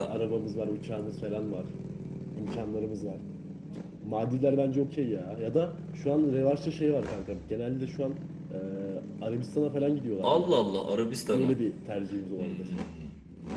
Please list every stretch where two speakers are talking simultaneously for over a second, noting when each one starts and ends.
none

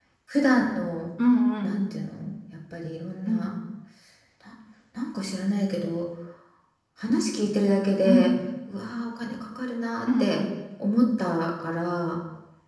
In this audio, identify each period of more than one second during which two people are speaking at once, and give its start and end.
none

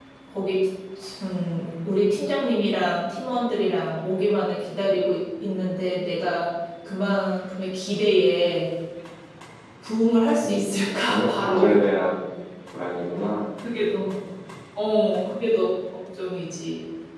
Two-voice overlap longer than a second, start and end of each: 10.4-11.8

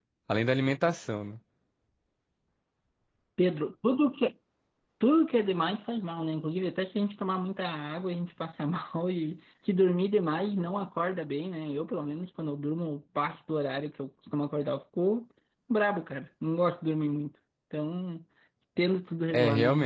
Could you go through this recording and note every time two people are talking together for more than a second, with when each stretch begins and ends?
none

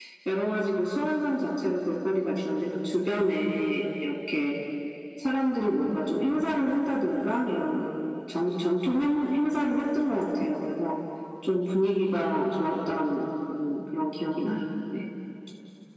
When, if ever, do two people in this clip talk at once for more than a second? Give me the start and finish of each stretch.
none

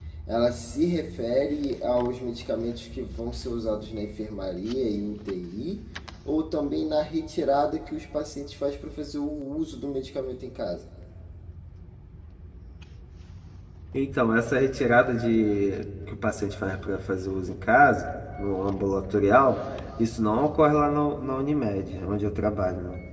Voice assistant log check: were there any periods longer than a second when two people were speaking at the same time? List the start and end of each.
none

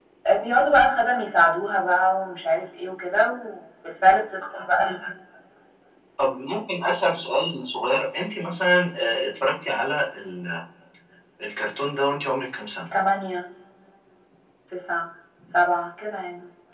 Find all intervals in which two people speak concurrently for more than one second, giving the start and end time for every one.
none

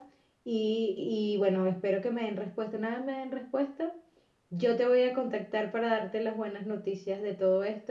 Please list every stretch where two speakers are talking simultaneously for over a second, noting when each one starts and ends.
none

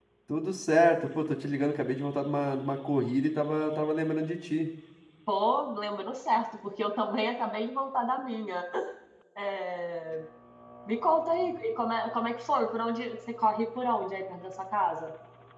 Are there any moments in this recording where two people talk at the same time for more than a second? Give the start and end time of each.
none

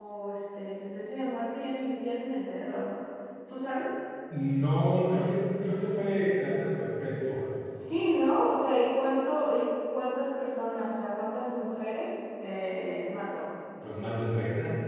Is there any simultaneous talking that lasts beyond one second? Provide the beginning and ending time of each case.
none

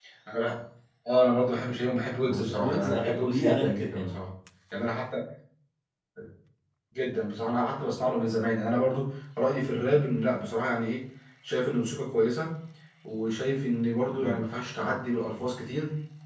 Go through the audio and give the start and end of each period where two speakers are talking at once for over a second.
2.2-4.1

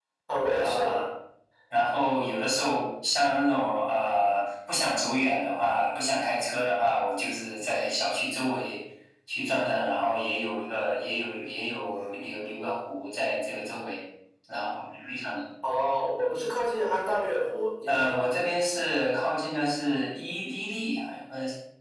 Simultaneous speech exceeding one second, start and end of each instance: none

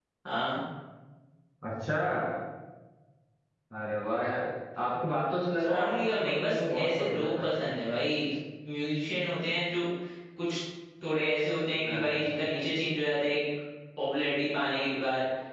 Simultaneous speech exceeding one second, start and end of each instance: 5.6-7.5

